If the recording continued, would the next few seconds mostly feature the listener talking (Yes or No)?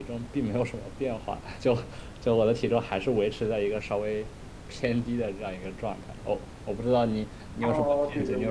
Yes